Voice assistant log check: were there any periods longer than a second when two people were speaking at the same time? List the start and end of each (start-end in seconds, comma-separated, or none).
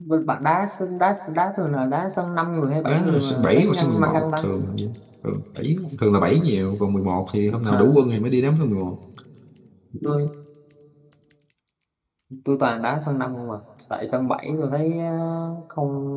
2.9-4.5